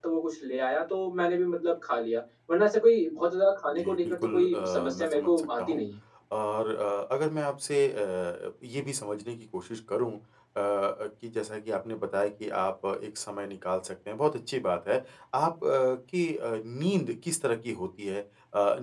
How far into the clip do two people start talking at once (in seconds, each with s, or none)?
3.8 s